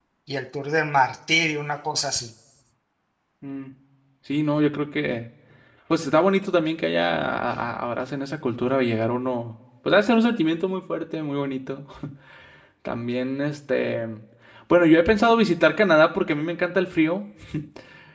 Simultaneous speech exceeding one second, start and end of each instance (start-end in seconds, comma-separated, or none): none